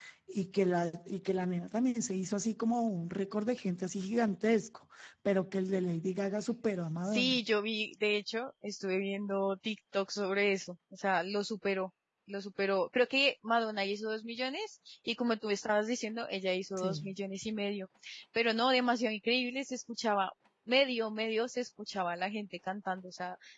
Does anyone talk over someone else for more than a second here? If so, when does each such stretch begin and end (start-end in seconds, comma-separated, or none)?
none